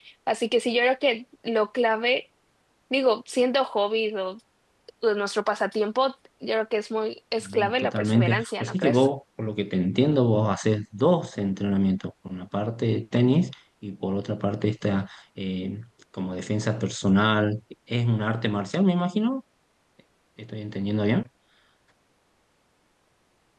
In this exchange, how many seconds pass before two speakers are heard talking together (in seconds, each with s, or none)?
7.4 s